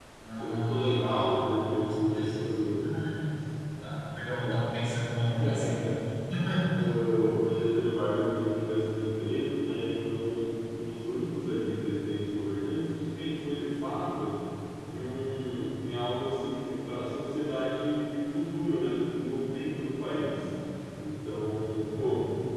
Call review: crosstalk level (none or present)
present